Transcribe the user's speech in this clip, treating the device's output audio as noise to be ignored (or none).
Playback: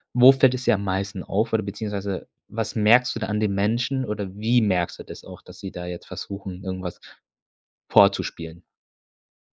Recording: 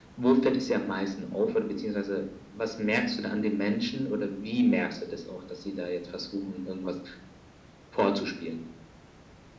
none